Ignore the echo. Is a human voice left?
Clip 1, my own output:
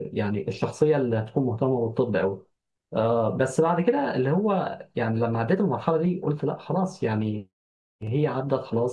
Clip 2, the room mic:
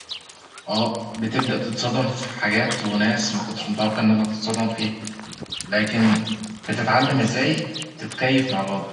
Yes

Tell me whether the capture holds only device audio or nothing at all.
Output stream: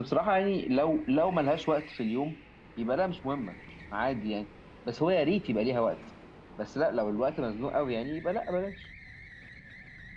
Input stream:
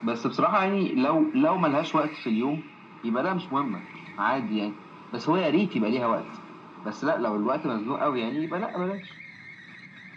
Yes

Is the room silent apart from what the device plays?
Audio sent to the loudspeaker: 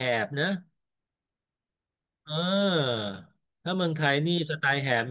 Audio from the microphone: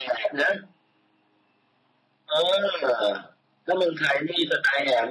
Yes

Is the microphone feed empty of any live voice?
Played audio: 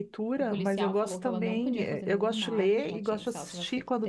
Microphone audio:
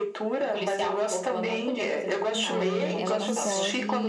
No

